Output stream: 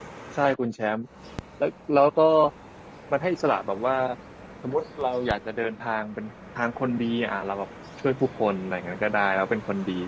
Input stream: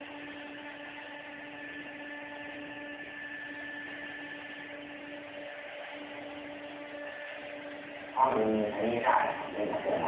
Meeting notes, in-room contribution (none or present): present